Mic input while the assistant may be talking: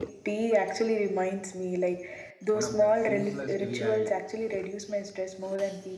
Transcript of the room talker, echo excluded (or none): One of the simplest way I,